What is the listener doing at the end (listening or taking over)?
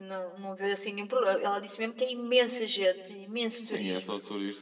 taking over